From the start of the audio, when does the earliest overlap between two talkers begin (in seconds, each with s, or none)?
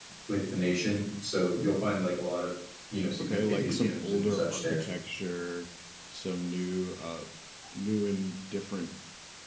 3.2 s